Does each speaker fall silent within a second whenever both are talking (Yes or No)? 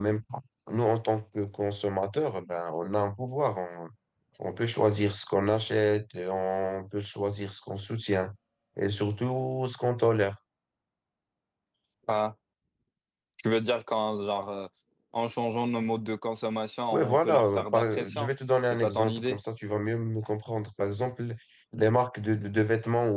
No